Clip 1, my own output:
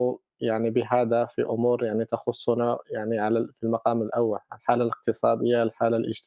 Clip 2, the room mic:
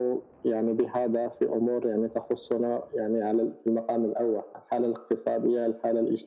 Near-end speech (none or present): none